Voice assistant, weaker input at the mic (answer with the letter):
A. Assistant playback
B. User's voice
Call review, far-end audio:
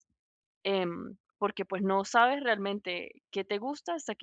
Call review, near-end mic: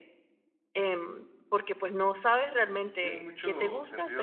B